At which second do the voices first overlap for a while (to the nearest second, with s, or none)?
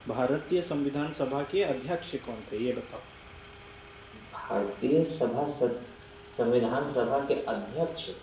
none